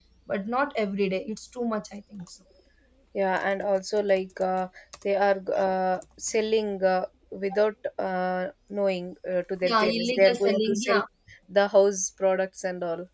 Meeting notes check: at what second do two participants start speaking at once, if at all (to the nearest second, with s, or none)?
10 s